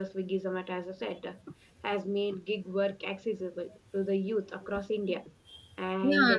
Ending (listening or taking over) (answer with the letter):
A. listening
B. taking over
B